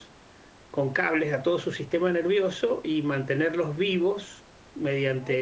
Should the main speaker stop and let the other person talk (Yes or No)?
No